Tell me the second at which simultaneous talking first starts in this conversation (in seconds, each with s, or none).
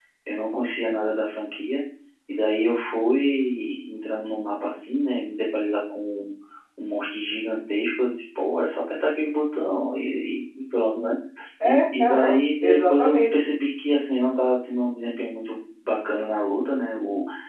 11.6 s